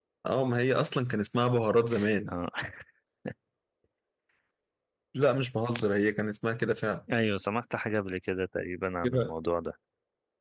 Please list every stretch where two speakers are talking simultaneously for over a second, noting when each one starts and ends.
none

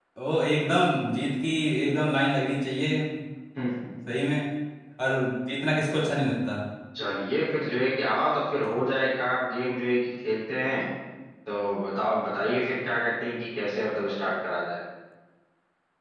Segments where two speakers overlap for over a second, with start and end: none

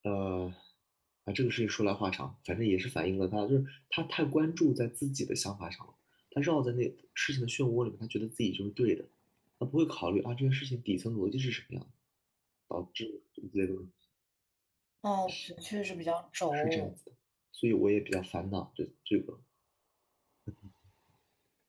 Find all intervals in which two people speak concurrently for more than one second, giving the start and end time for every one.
none

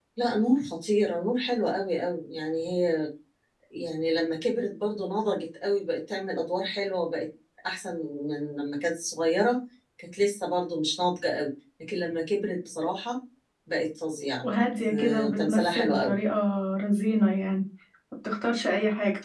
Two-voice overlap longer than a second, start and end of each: 14.4-16.2

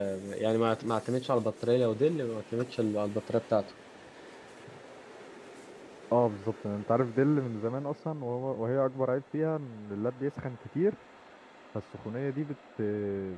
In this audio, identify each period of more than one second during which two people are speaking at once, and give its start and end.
none

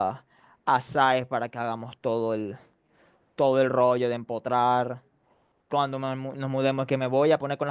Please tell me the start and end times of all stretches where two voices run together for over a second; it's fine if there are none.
none

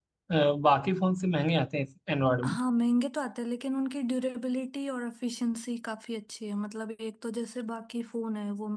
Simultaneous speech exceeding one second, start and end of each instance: none

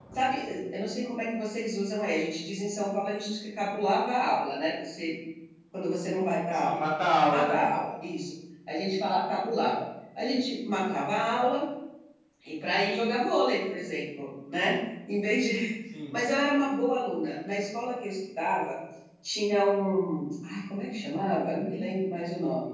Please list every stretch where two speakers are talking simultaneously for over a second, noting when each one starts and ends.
none

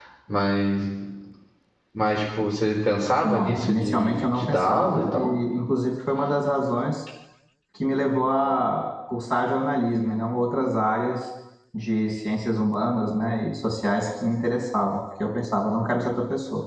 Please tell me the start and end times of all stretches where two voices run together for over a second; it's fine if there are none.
3.2-5.3

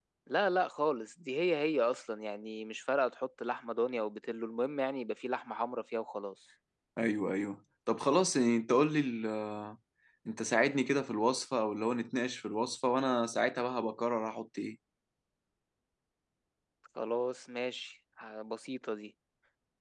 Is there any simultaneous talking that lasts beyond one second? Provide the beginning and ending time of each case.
none

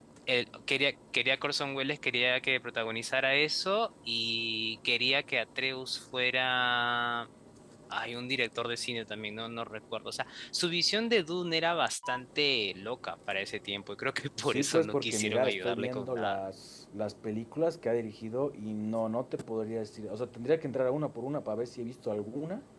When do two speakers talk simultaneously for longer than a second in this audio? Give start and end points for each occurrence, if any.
14.4-16.4

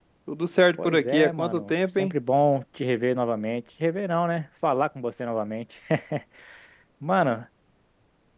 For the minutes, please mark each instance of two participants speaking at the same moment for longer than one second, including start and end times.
0.8-2.1

